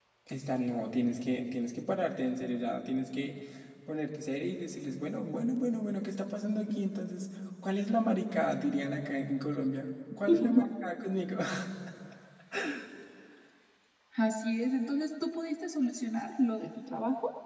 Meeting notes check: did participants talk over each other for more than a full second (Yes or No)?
No